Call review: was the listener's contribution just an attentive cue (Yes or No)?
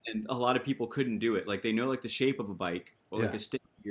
Yes